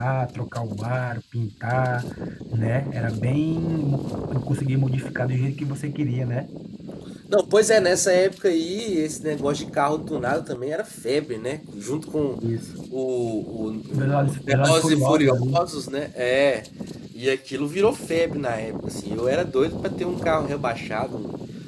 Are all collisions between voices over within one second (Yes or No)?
No